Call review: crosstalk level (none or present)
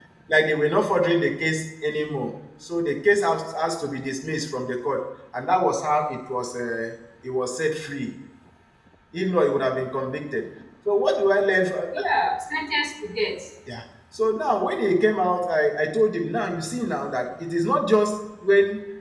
none